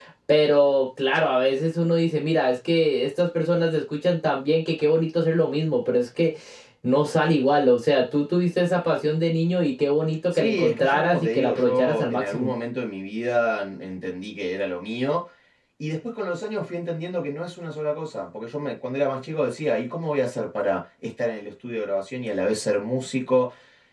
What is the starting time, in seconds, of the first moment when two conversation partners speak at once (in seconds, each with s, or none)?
10.3 s